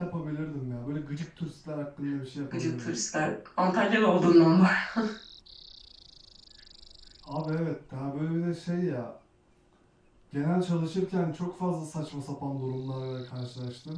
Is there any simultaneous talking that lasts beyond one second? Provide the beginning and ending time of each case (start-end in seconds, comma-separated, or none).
none